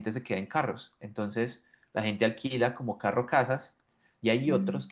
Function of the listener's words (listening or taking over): listening